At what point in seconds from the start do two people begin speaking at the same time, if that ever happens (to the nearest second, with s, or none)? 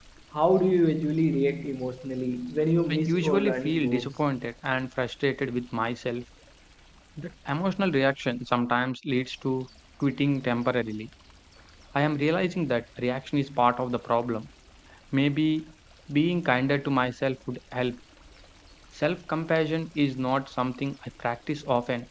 3 s